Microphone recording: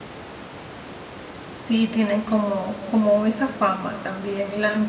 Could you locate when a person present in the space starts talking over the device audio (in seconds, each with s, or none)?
1.7 s